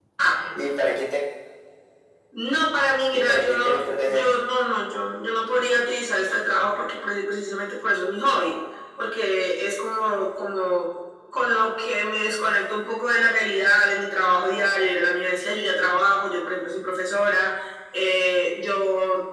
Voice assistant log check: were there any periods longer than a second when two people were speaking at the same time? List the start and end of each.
3.1-4.3

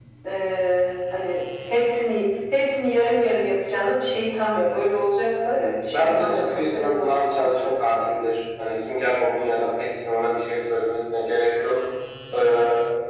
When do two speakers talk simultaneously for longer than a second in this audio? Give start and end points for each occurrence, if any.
5.9-7.7

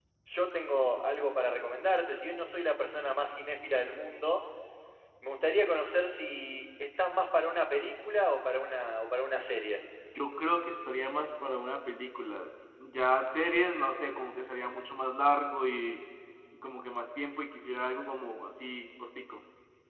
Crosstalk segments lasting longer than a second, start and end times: none

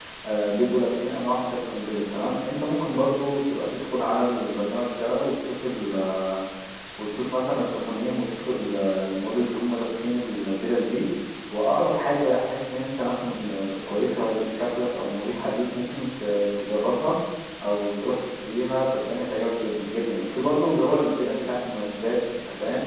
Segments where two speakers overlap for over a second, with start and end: none

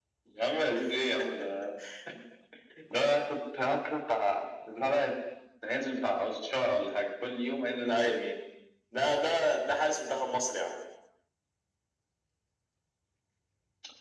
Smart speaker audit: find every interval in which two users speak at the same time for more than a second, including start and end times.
none

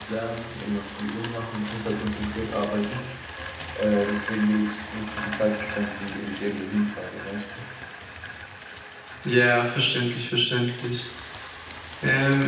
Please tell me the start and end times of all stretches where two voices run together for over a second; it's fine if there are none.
none

